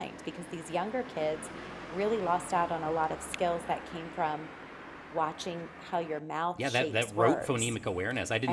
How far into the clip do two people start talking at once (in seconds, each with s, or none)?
6.5 s